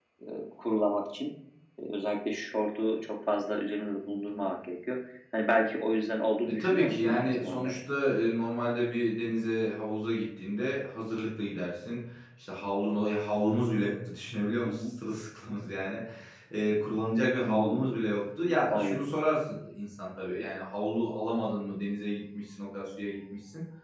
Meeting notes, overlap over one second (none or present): present